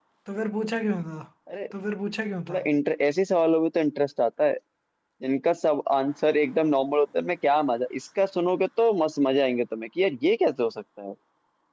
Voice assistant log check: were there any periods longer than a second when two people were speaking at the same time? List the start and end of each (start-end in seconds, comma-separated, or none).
none